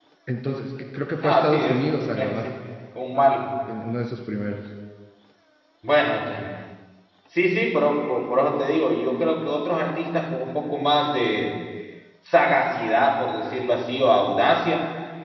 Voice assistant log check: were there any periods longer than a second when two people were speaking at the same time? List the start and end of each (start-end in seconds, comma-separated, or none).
1.2-2.5